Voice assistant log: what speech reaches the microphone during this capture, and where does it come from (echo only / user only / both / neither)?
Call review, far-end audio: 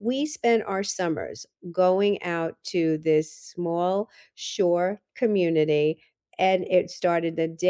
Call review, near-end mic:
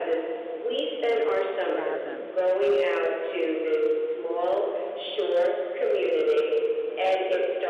both